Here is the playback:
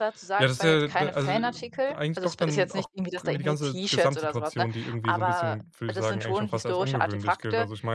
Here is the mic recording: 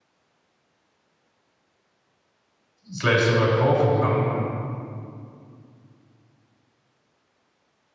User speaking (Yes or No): Yes